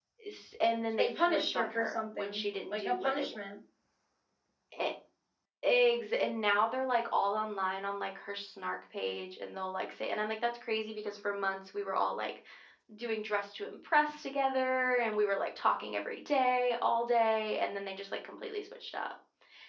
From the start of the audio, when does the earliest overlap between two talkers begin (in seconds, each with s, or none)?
1.0 s